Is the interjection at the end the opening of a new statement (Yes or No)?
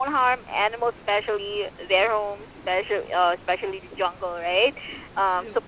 No